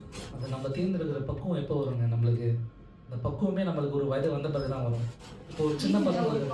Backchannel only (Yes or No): No